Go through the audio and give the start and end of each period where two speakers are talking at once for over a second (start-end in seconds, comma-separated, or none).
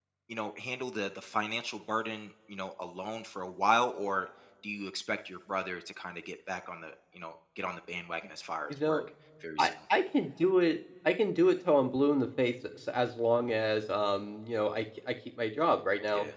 none